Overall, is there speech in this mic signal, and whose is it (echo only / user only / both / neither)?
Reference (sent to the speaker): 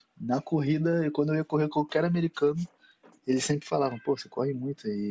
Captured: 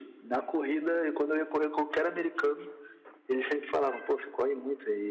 echo only